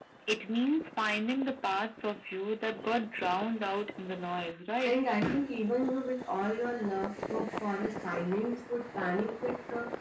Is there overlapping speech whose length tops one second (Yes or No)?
No